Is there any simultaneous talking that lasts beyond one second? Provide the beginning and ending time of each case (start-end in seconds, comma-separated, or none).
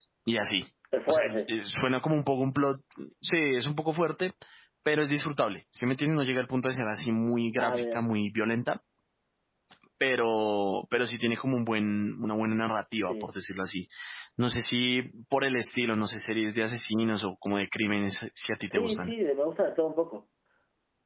none